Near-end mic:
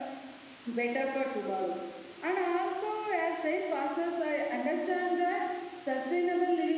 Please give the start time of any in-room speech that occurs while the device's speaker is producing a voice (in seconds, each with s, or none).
none